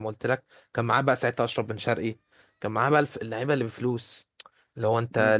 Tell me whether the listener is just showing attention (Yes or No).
Yes